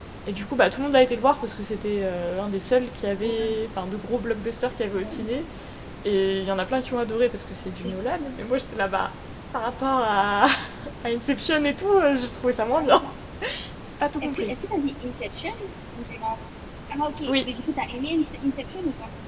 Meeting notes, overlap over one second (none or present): none